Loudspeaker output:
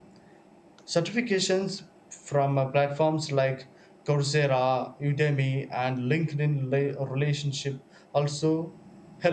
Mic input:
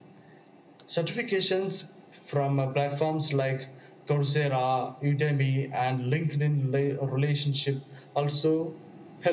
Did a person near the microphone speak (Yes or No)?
No